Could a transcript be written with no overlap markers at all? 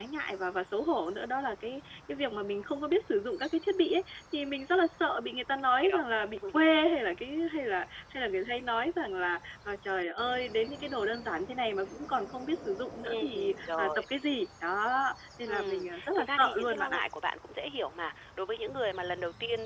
No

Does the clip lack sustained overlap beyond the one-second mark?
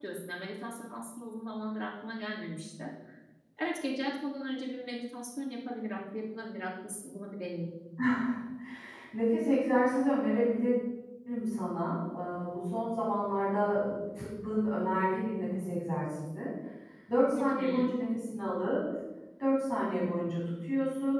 Yes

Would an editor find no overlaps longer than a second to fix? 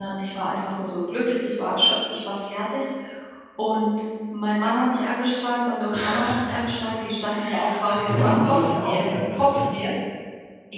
No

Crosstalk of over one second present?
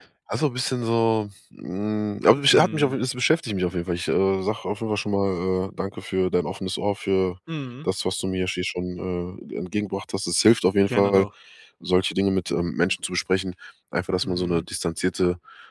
No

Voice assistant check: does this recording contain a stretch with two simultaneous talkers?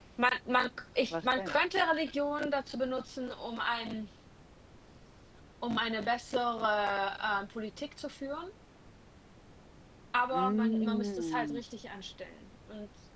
Yes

